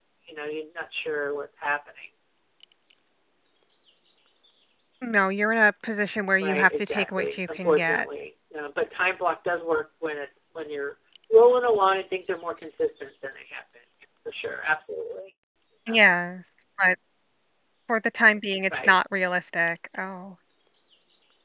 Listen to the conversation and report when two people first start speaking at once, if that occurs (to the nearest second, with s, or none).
6 s